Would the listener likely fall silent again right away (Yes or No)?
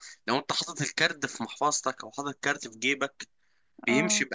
Yes